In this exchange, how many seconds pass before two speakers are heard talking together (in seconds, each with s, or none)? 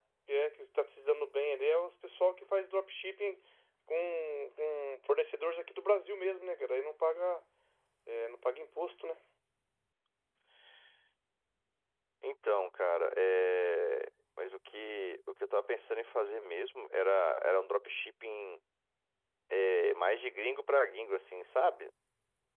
none